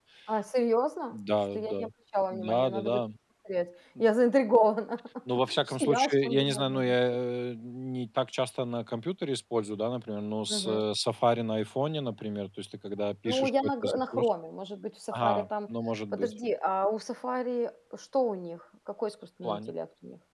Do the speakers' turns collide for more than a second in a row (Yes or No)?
Yes